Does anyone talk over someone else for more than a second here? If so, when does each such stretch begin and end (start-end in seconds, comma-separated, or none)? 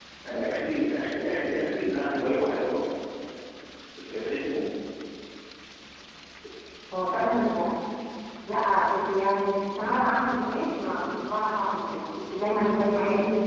none